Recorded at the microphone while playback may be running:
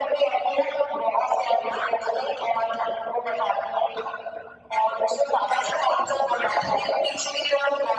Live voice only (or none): none